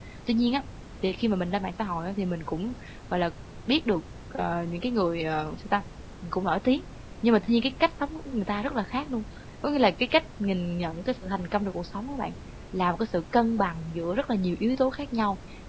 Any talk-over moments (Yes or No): No